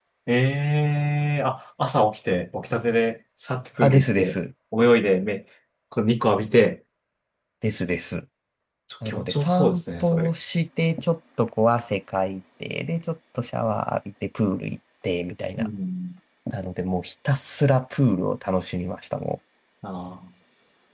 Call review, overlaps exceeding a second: present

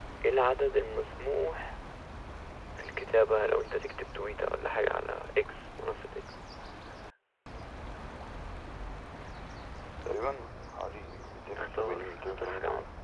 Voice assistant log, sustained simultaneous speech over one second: present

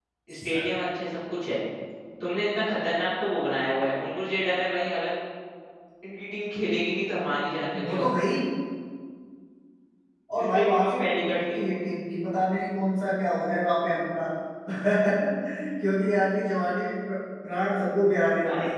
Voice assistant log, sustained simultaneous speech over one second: present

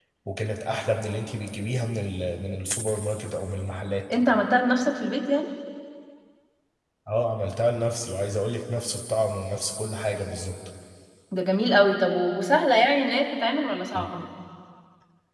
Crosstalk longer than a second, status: none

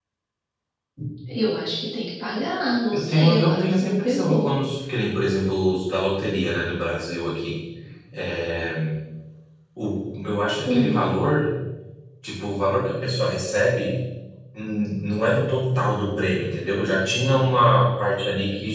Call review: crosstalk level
present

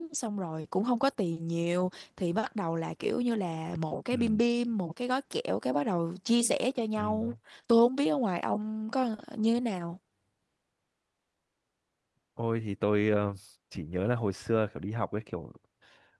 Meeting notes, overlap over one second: none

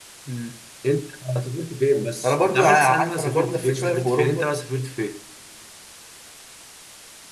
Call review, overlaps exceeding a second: present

